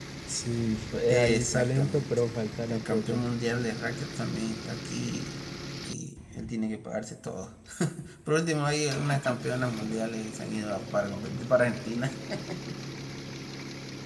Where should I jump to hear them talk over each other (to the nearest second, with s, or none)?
1 s